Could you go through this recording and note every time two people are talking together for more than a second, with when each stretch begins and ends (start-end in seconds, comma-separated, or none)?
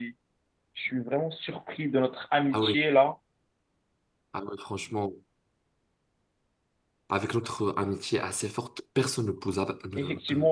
none